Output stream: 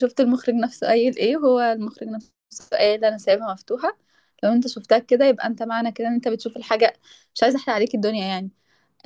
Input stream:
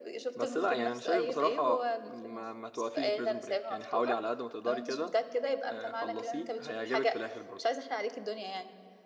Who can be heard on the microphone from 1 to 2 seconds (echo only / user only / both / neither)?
both